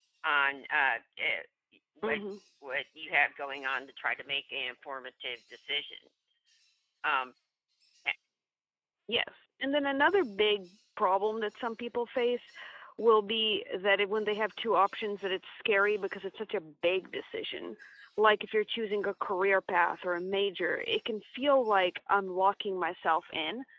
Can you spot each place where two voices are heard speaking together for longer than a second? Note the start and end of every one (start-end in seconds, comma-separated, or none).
none